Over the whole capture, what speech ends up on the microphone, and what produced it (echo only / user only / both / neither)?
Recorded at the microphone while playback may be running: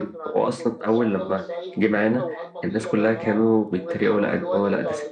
both